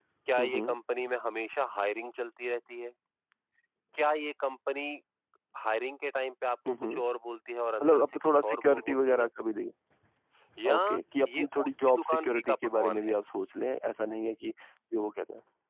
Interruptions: present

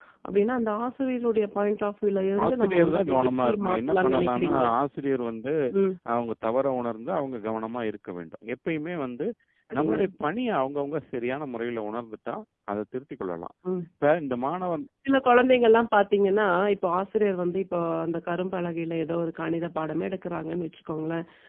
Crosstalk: present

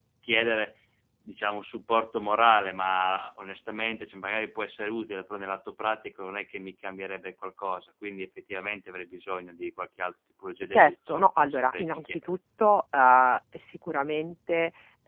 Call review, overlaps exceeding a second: present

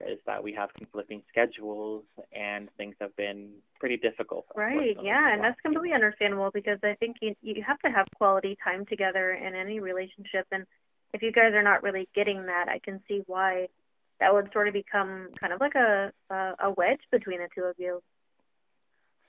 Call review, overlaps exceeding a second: present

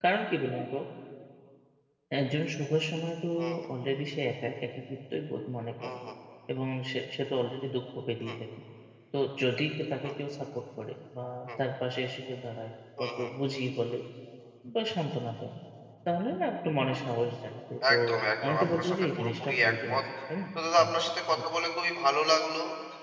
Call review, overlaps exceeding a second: present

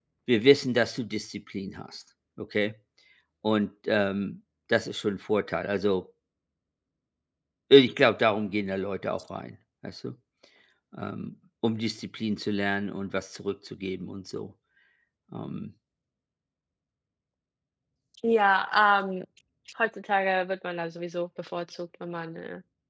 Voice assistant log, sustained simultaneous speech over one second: none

